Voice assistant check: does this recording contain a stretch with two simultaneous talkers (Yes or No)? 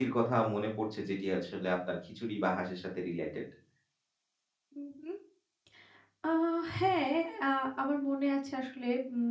No